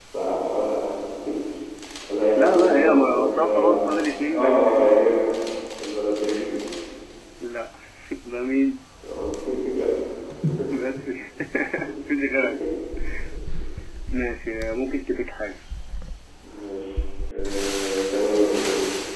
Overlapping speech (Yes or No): Yes